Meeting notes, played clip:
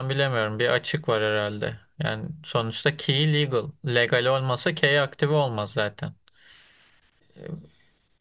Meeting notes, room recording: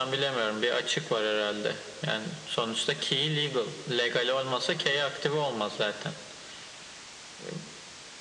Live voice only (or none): none